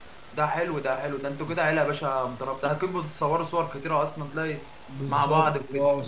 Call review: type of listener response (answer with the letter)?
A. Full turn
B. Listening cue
A